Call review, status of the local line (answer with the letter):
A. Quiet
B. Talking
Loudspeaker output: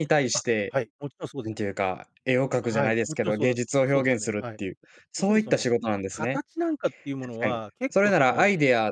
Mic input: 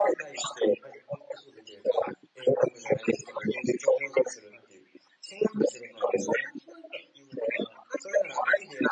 A